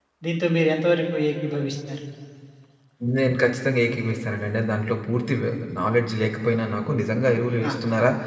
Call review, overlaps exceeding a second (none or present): none